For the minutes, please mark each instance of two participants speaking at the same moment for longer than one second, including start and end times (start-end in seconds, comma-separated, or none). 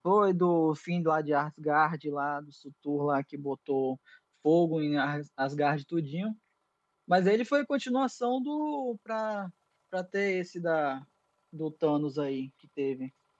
none